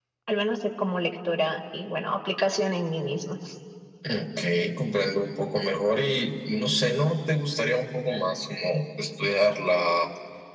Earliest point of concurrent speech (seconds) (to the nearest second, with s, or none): none